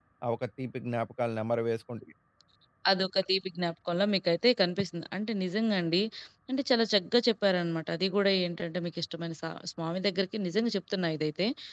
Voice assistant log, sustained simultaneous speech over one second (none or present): none